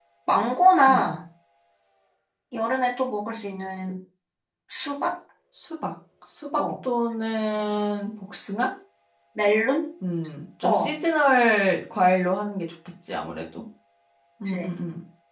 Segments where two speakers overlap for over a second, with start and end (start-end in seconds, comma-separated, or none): none